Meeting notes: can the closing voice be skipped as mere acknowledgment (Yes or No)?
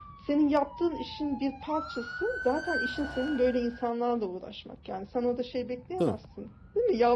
Yes